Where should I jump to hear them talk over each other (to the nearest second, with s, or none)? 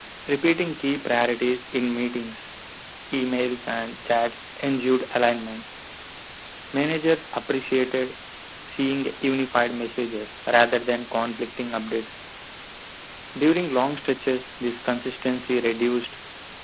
none